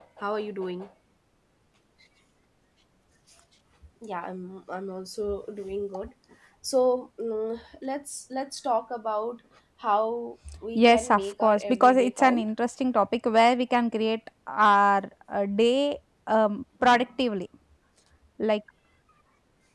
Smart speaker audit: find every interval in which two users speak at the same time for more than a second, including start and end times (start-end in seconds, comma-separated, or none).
10.8-12.4